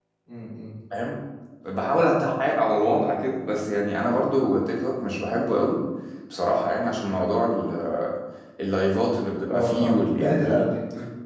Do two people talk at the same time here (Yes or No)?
Yes